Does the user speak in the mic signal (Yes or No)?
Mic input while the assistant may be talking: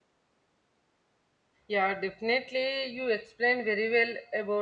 Yes